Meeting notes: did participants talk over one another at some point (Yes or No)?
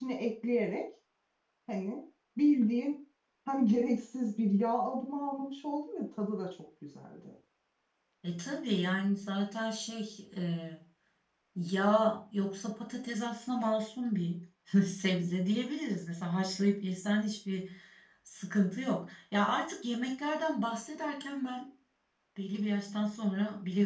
No